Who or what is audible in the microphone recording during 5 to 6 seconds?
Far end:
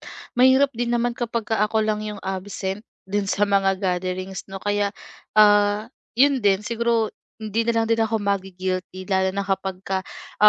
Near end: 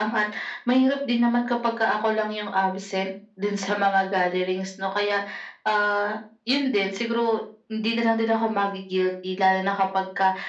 echo only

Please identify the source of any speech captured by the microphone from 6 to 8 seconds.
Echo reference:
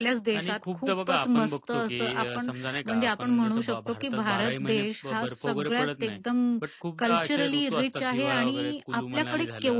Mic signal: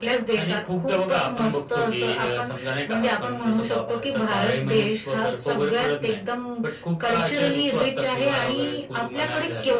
echo only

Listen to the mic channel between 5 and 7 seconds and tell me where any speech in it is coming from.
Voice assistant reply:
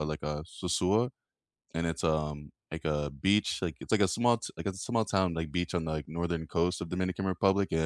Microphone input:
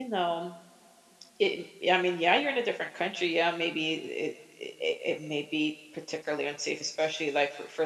user only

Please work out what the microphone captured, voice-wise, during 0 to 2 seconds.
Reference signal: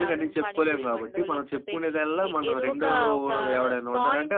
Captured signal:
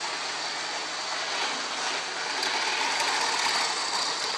neither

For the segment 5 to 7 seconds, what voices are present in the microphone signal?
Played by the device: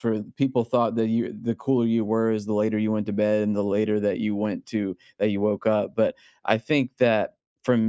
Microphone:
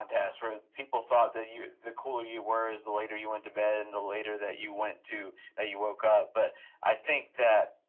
echo only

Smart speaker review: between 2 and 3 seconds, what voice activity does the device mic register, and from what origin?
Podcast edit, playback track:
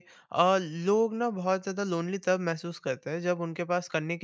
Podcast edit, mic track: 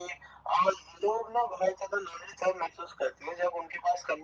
echo only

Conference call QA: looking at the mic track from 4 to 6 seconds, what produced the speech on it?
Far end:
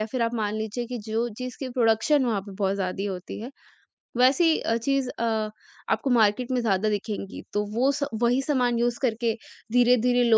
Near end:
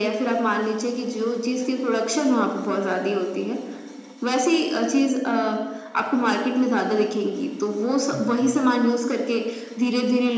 echo only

